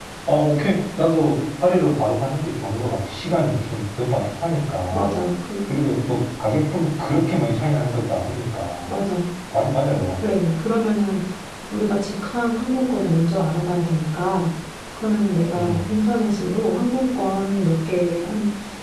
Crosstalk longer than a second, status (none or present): none